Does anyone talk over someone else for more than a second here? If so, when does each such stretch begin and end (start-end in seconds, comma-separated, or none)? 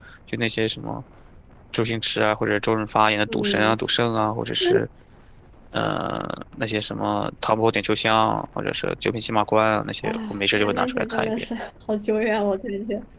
10.0-11.4